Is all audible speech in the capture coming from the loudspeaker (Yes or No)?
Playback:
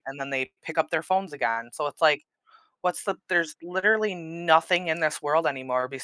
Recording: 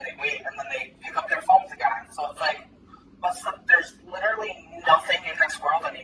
Yes